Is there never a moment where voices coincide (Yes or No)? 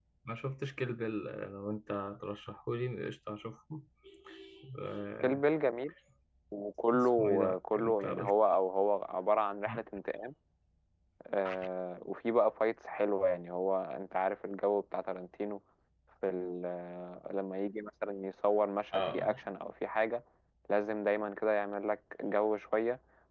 No